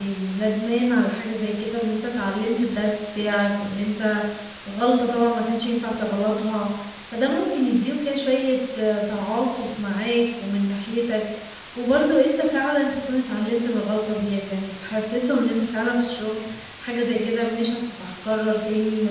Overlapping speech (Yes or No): No